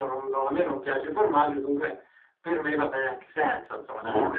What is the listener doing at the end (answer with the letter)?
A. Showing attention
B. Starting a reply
A